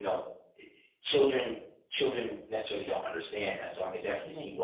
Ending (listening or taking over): listening